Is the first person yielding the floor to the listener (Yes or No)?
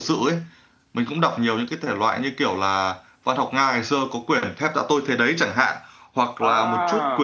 No